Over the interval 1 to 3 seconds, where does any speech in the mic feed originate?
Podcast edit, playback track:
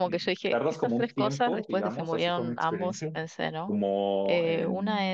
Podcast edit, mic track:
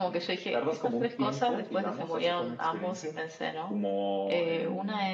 echo only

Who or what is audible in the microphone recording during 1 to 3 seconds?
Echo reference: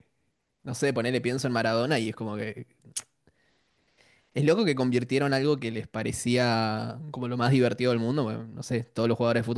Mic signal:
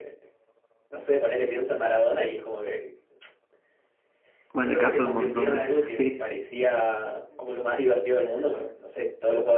echo only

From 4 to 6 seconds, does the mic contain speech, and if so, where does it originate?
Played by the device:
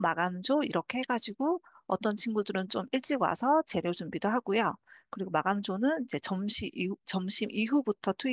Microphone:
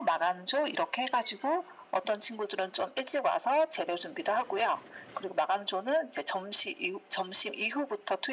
echo only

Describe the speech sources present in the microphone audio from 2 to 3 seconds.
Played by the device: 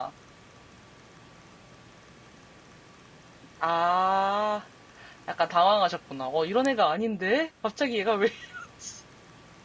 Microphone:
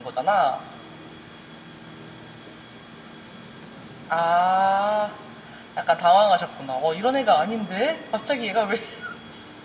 neither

